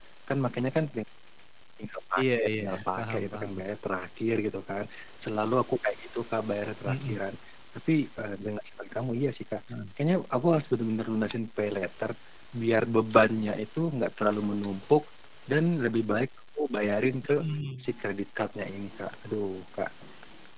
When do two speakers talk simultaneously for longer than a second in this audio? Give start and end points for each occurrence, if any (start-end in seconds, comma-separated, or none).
2.2-3.5